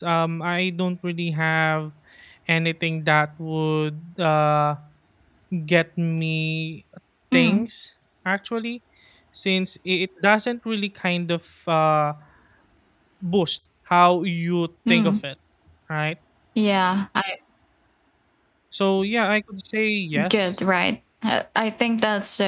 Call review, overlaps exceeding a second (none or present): none